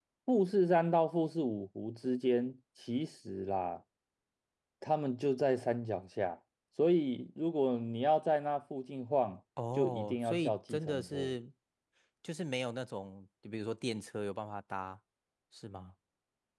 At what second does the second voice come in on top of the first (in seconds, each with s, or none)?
9.6 s